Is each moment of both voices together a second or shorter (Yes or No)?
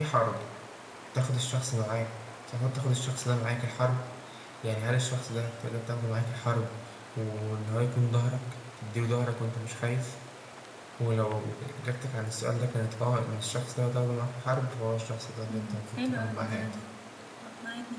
No